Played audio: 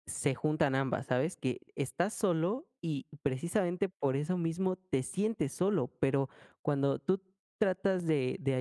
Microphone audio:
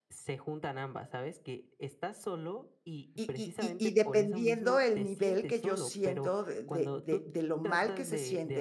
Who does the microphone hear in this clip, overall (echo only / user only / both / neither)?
both